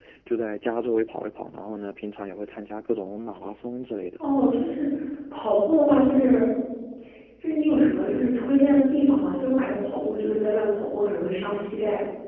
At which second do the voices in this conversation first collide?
none

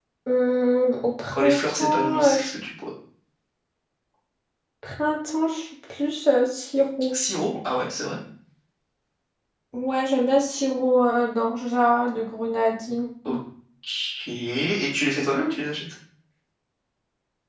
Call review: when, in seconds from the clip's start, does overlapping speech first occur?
1 s

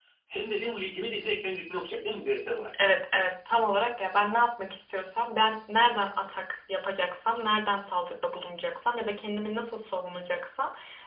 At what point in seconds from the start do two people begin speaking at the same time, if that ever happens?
none

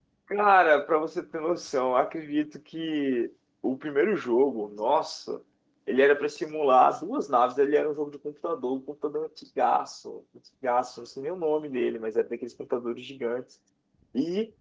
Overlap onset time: none

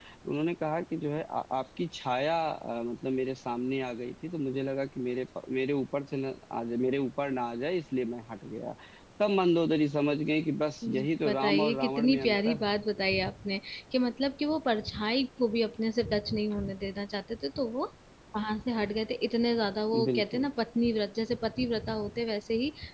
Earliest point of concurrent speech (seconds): 11 s

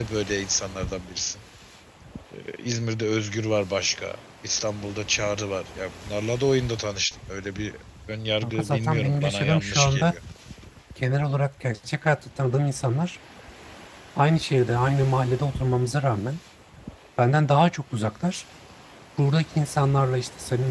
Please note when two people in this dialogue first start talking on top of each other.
8 s

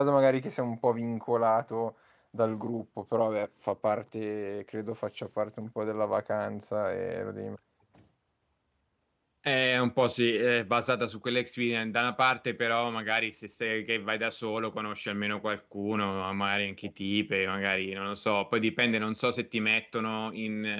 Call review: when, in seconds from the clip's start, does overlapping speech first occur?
none

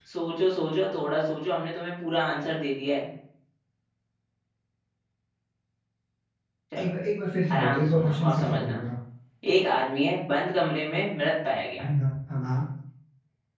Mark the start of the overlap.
8 s

